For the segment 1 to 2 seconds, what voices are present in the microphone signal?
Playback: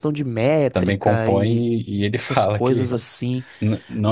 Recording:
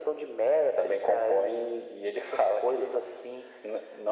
echo only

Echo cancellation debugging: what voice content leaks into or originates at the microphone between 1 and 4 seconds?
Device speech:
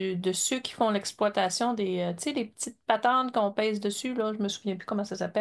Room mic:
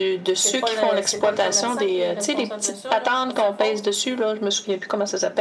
both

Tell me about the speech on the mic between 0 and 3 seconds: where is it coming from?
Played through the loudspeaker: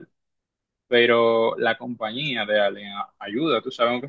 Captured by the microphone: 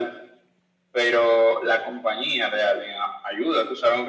echo only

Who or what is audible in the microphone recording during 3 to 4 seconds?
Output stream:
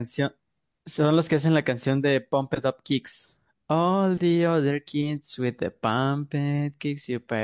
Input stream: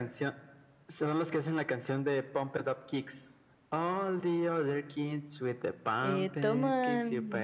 echo only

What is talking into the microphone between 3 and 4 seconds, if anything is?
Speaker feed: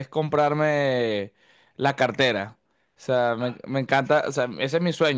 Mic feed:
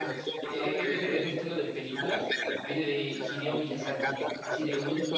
both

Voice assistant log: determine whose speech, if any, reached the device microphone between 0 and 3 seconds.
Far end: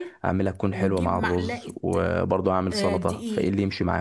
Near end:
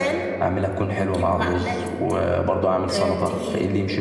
echo only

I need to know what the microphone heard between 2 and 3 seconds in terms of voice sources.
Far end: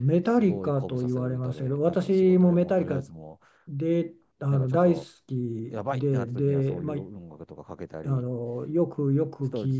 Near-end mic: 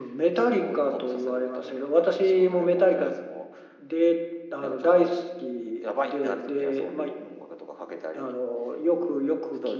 echo only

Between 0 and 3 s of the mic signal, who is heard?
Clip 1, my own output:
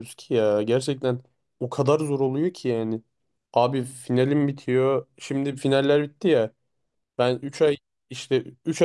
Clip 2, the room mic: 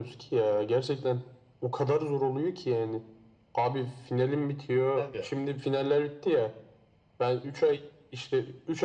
echo only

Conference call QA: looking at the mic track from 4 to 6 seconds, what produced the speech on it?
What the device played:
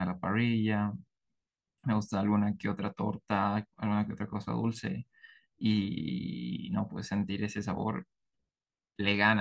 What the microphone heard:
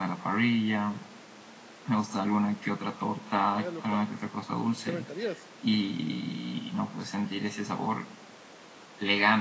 both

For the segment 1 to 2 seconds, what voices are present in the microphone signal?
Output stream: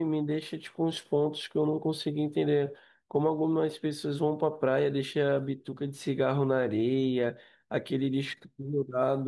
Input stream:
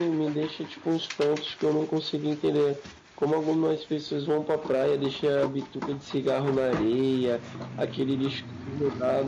echo only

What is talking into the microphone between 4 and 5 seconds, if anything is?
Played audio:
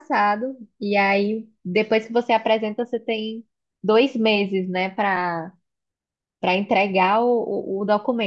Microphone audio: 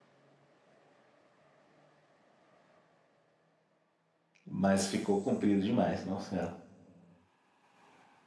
user only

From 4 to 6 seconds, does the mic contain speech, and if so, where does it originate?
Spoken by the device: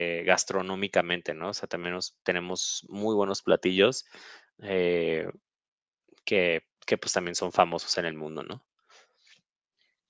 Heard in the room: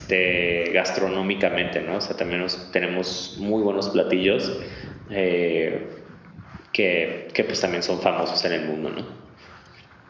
echo only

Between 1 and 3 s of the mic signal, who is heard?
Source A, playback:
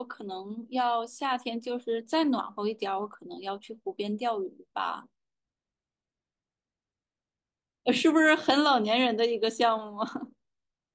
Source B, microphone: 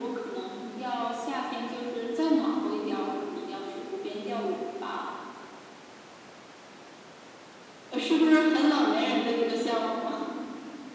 echo only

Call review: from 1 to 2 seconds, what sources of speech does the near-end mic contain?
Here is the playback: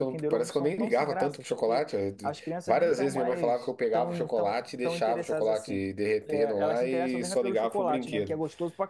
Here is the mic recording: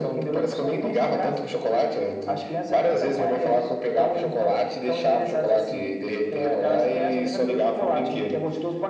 echo only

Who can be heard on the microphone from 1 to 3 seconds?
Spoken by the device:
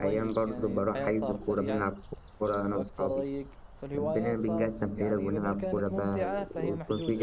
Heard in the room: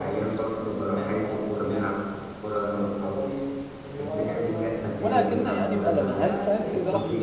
echo only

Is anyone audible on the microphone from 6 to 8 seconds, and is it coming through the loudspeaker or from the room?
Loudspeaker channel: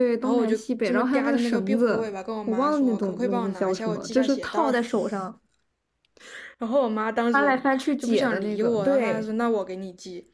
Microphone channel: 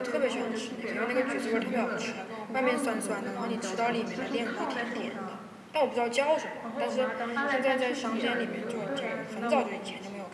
both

